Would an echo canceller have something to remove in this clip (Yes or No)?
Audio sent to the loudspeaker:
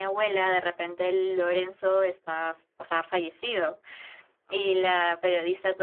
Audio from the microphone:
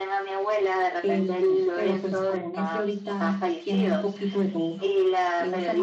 Yes